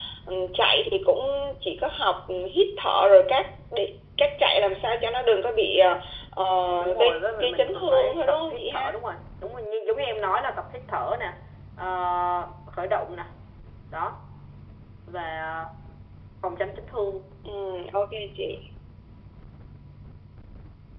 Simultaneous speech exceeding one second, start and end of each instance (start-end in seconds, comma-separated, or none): 6.8-8.9